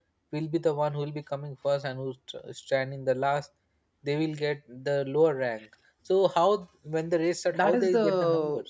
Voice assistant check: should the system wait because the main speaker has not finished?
No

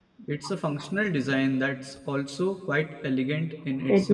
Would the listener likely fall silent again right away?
No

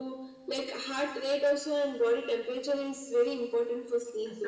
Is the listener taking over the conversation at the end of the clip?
Yes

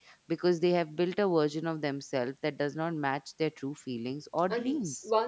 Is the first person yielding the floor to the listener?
Yes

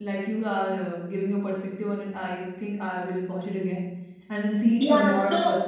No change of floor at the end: No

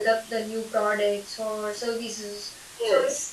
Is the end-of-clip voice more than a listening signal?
No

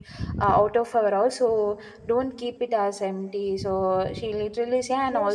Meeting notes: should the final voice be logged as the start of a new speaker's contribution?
Yes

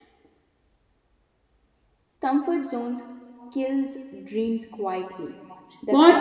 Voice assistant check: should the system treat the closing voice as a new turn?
Yes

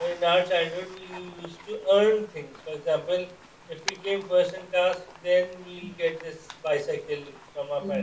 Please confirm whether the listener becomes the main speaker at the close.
No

